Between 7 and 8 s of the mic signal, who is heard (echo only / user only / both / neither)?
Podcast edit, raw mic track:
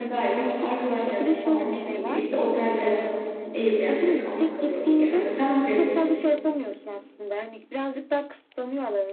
echo only